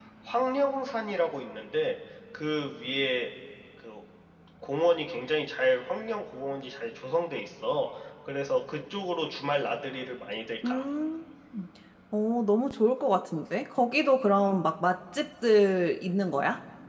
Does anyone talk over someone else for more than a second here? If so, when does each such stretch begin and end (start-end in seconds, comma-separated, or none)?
none